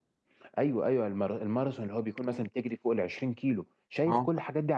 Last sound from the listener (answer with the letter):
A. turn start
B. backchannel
B